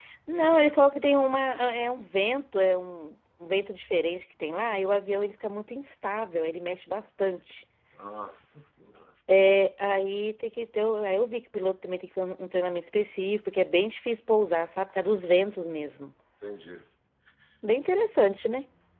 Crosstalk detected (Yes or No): No